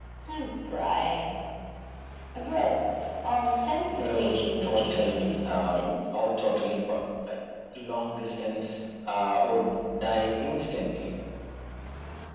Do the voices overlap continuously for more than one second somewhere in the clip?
Yes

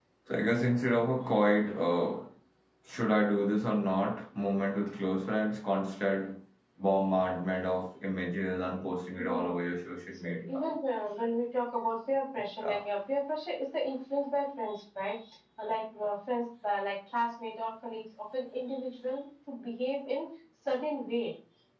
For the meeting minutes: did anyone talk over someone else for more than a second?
No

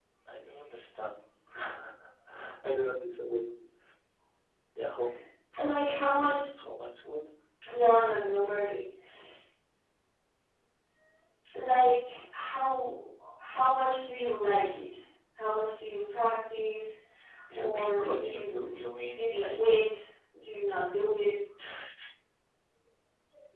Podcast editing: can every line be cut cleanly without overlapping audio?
No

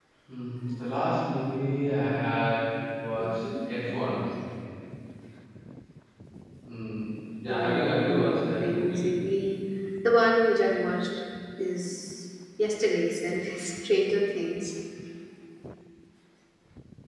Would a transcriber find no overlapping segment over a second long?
No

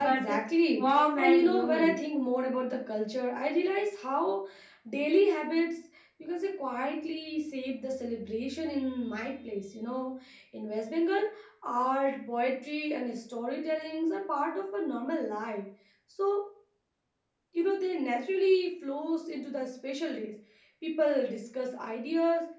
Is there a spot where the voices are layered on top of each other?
Yes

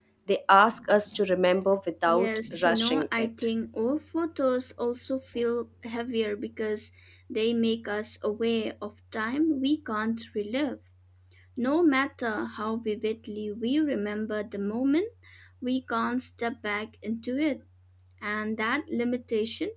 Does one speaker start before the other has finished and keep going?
Yes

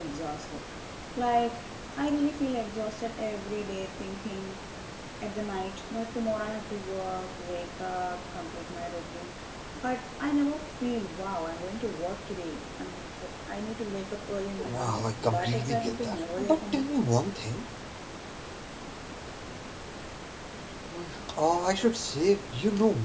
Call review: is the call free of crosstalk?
No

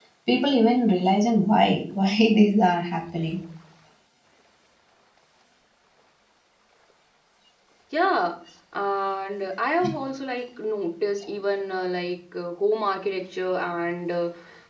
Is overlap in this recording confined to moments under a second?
Yes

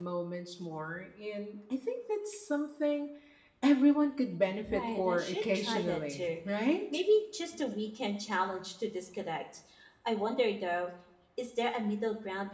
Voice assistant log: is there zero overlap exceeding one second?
No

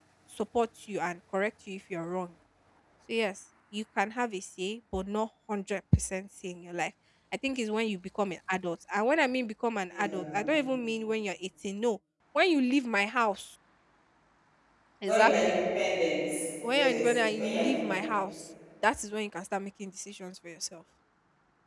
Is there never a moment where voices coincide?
No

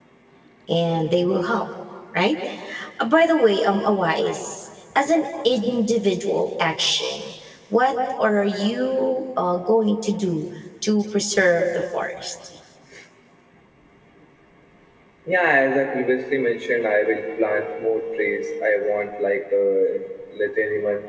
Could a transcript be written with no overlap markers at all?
Yes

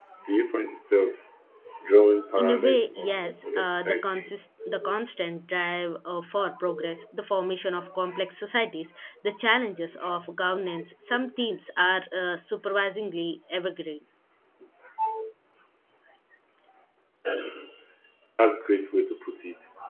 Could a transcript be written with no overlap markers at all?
No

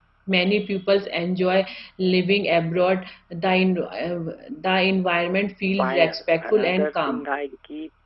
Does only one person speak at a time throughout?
No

